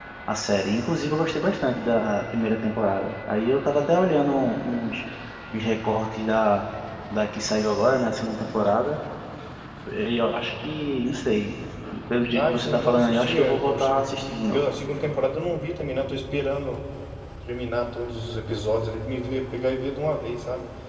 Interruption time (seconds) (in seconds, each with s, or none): 12.3 s